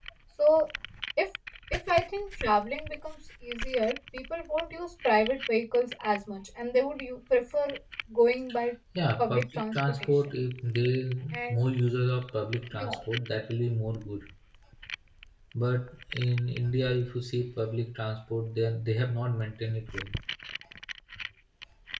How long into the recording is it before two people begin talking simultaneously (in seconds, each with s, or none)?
9.2 s